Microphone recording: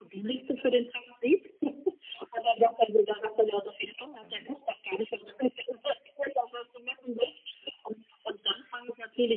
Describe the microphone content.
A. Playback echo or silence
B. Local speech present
B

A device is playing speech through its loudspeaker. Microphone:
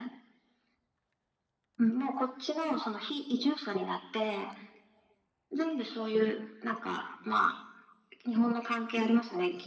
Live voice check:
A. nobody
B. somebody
A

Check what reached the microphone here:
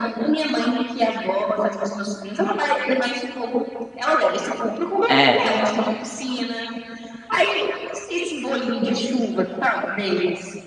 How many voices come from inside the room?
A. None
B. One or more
B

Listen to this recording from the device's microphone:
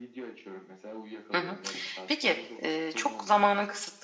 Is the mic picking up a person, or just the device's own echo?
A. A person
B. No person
A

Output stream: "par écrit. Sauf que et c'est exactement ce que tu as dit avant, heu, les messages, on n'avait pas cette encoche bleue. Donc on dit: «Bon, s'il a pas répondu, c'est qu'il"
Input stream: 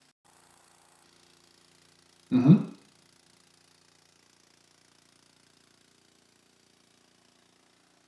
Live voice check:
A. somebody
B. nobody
A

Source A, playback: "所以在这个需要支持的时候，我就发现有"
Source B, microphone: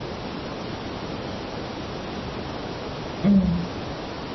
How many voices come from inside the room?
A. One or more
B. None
A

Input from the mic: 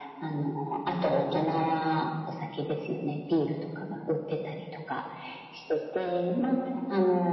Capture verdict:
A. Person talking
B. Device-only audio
B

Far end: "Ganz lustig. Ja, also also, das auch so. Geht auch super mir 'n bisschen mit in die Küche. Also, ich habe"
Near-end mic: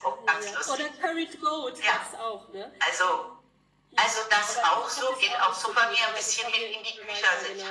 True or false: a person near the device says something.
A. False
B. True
B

